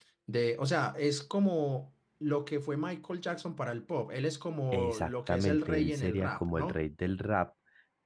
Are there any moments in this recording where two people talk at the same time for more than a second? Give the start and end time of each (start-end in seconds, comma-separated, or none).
4.7-6.8